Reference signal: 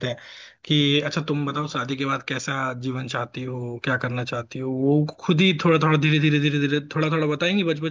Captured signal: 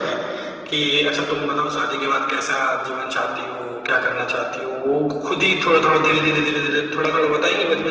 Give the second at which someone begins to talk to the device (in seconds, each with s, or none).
none